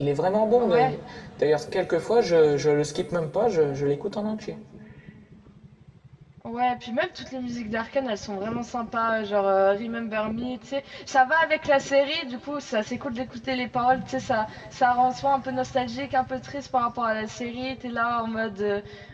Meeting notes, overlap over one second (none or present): none